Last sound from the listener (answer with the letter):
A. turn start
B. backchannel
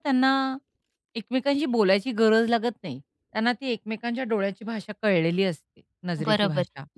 A